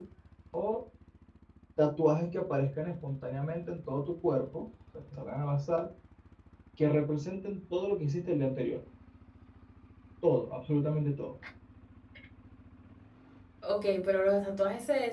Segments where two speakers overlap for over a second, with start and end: none

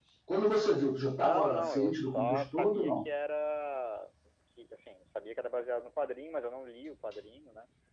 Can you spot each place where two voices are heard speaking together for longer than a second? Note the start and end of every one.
1.2-2.9

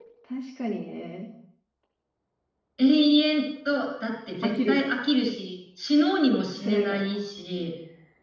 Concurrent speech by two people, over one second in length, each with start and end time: none

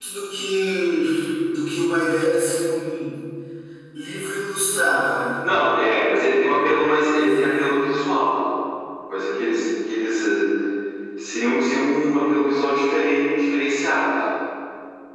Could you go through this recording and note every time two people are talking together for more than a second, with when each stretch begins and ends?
none

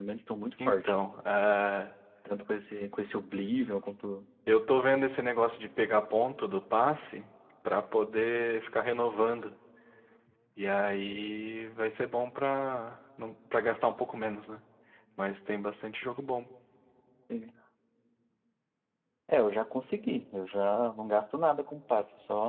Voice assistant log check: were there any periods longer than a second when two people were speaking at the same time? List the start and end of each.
none

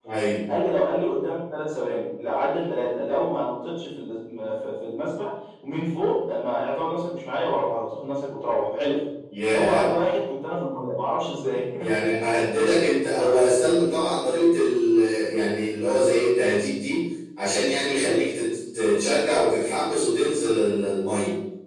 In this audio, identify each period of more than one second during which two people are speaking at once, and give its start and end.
none

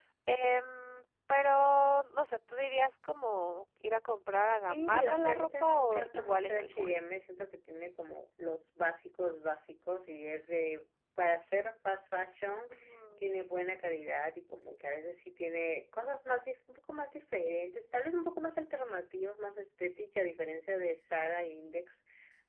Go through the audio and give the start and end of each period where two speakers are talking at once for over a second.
4.7-7.0

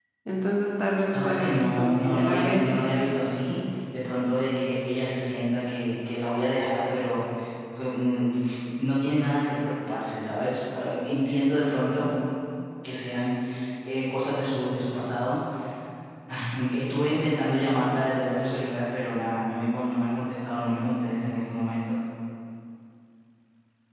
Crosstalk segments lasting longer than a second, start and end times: 1.1-2.8

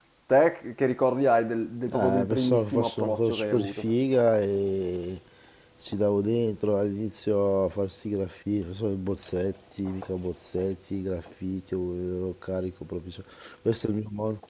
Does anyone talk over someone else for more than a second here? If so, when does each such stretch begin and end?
1.9-3.9

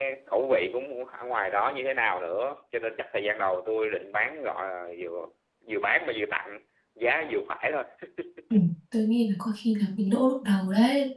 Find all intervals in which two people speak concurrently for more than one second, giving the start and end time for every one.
none

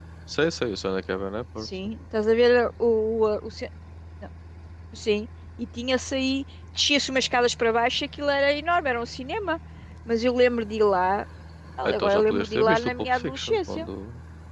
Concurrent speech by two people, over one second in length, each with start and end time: 11.8-13.9

